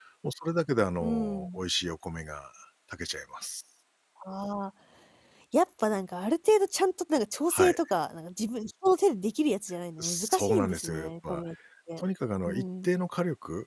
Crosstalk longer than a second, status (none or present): present